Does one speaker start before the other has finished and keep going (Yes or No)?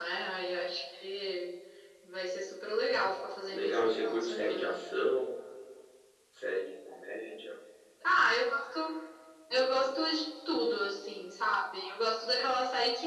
Yes